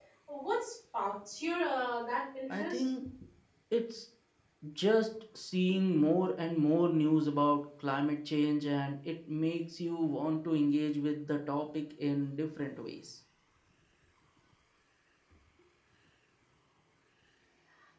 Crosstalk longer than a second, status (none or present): none